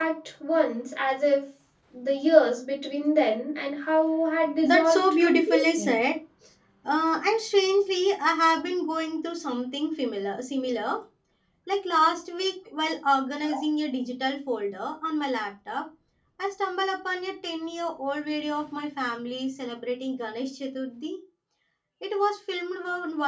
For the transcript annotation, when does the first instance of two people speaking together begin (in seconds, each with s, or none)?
4.6 s